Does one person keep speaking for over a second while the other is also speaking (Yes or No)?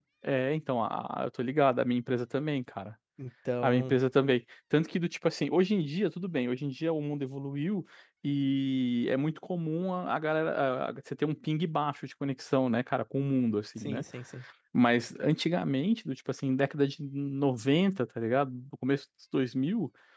No